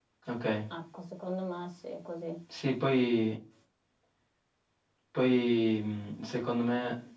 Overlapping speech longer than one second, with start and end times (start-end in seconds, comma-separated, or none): none